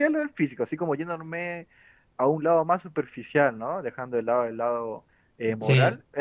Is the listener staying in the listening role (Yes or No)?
Yes